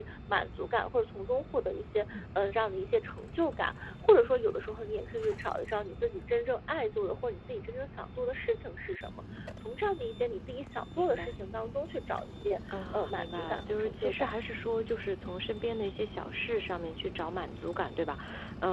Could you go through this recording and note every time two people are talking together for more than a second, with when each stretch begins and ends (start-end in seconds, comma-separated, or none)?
12.9-14.3